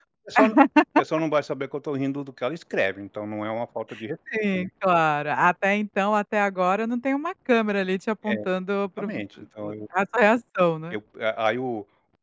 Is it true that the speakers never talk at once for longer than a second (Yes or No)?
Yes